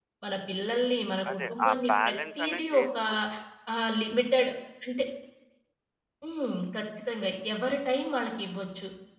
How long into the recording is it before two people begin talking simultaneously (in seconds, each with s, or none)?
1.2 s